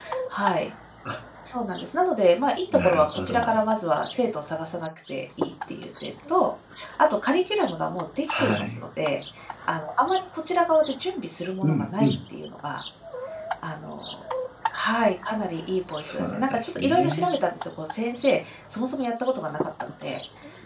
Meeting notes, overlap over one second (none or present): present